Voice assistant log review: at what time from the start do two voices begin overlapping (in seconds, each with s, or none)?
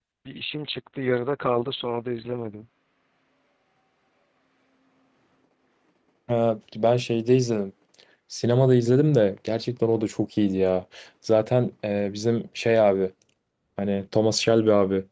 none